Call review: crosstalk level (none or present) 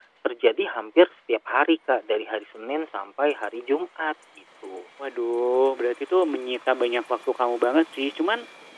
none